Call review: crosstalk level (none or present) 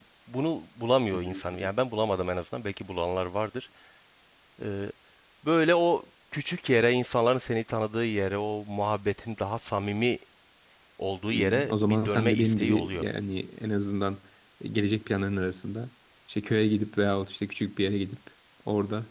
present